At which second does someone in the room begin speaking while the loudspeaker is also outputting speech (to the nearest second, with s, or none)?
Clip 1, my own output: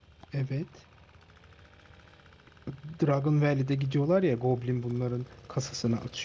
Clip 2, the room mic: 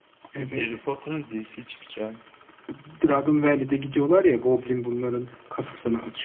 0 s